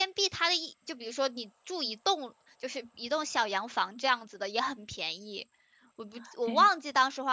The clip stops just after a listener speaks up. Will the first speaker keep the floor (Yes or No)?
Yes